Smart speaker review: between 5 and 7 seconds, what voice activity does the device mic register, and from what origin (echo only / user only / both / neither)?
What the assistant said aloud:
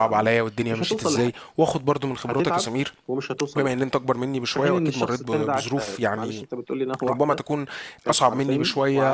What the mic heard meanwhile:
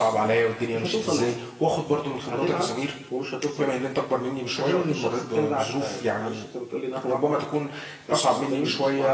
echo only